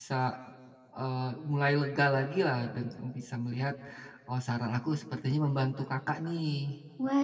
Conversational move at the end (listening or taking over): taking over